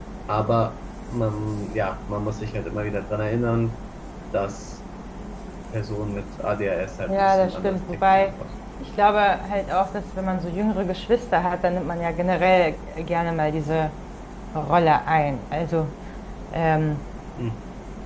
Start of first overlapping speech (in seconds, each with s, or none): 7.0 s